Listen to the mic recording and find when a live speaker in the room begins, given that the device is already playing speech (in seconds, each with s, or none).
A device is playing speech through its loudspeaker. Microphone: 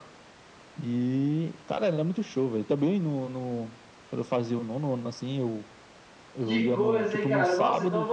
6.4 s